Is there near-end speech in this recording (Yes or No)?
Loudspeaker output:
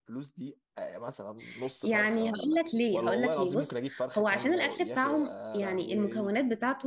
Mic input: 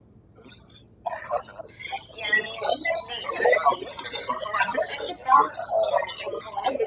No